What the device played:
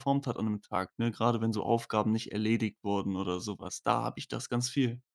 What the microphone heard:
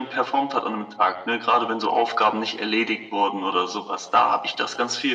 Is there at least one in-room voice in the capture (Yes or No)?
No